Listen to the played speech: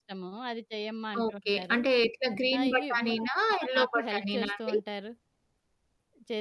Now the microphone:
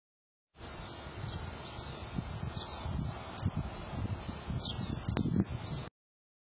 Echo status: none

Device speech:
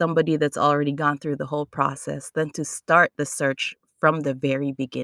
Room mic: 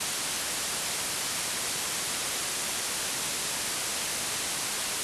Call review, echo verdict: none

